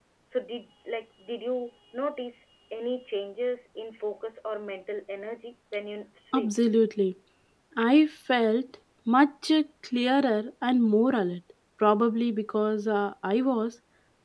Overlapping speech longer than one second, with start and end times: none

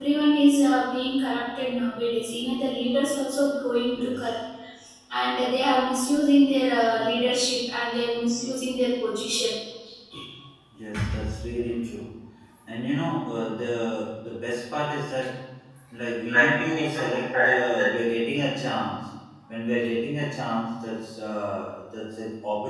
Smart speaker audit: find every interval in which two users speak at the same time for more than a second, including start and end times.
16.3-17.9

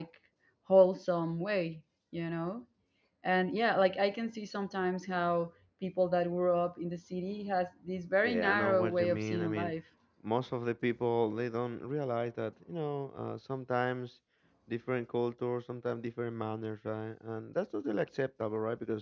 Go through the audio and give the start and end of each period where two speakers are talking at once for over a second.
8.2-9.7

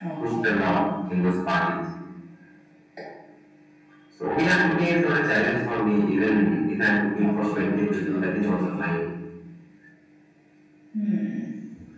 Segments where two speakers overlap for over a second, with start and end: 7.2-8.8

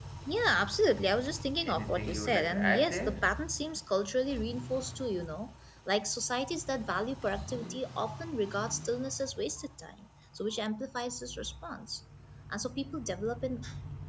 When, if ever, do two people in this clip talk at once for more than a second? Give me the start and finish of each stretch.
1.6-3.3

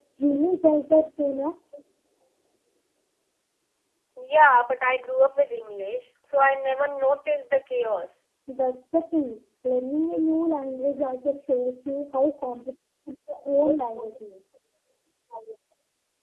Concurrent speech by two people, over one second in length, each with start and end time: none

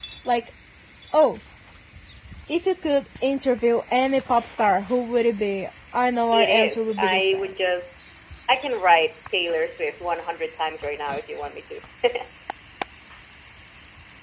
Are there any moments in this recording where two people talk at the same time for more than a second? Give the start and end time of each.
6.3-7.5

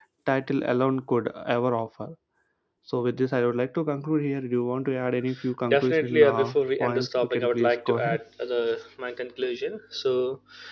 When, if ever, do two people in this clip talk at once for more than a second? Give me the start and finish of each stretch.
5.7-8.2

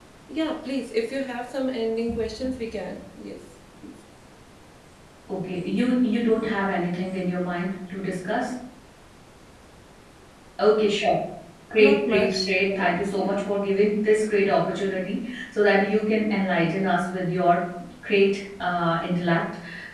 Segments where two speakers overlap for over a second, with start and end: 11.8-13.3

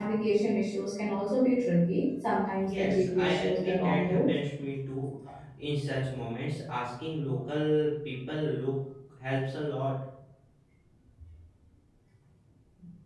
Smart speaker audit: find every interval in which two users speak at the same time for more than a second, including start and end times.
2.7-4.3

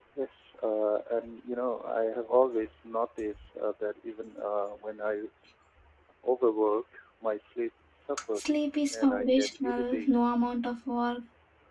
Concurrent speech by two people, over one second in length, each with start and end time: 8.4-10.1

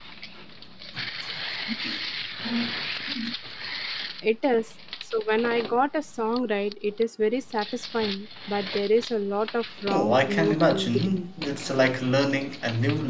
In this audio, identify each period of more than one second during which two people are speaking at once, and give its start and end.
9.9-11.3

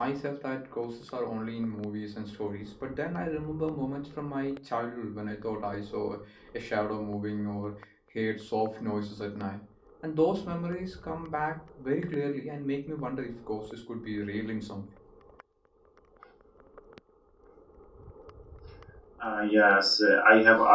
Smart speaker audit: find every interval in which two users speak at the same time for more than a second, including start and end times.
none

